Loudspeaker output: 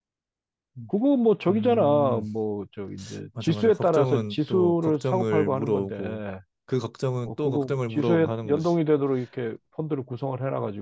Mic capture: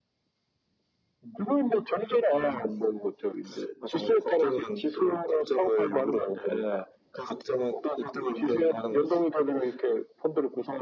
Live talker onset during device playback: none

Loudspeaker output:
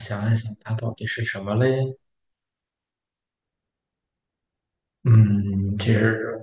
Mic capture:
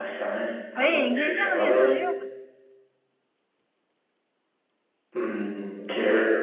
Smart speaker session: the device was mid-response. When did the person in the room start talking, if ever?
1 s

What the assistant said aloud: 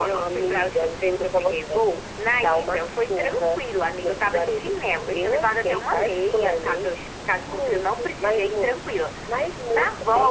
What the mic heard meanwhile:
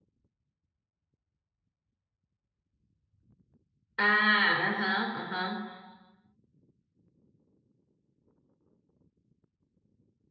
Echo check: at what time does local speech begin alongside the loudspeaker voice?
4 s

